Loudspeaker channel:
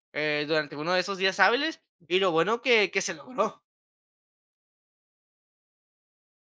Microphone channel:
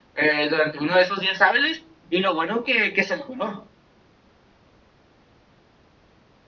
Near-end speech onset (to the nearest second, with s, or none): none